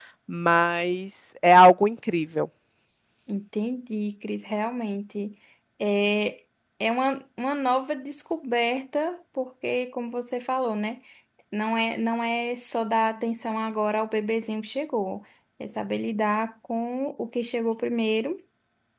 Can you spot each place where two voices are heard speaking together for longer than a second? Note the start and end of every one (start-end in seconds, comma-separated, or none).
none